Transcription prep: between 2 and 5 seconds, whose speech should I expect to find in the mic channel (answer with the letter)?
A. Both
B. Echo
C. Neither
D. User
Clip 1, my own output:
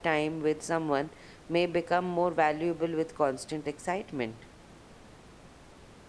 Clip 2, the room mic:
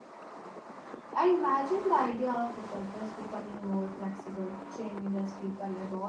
D